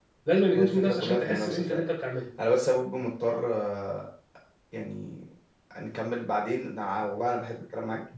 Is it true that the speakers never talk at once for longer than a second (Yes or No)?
No